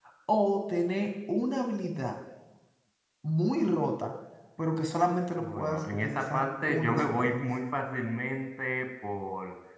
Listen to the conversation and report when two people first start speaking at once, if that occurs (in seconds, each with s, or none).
5.4 s